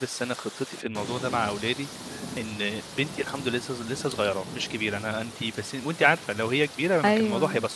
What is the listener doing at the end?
listening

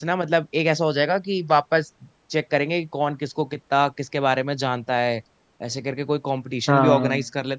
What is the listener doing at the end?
listening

